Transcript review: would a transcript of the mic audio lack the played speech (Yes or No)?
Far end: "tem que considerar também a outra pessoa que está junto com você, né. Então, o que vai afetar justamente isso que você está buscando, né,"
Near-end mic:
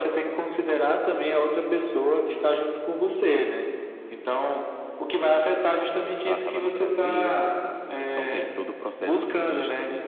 No